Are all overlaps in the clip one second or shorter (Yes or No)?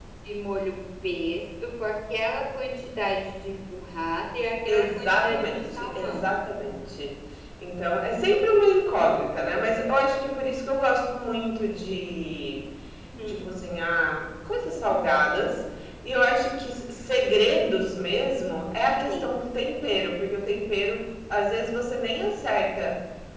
No